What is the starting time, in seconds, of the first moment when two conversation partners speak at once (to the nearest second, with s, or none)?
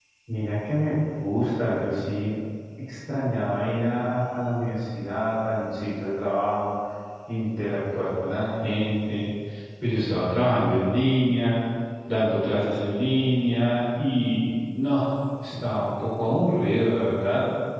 none